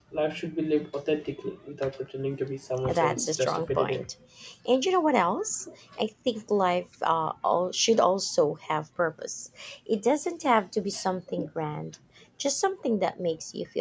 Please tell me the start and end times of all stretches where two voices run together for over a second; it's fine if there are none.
2.9-4.1

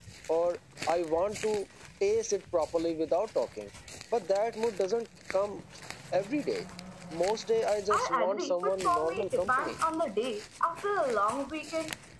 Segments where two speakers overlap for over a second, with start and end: 7.9-9.7

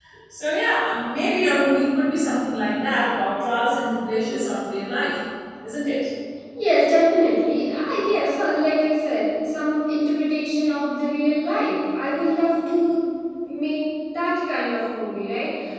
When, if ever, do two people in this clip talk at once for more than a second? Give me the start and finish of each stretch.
none

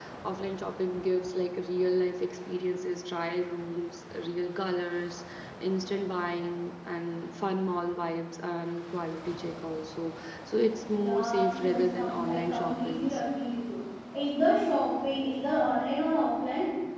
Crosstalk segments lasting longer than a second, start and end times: 11.0-13.2

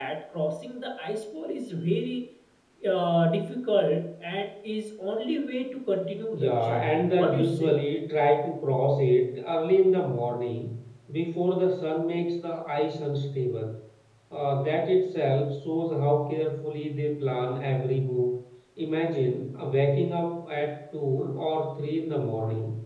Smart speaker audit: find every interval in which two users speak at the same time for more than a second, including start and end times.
6.3-7.8

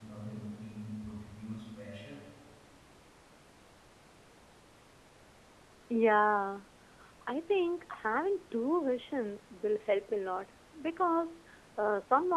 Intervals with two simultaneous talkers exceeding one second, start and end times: none

